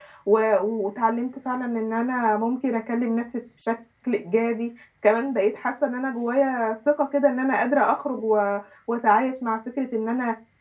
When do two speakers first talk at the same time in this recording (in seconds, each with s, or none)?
none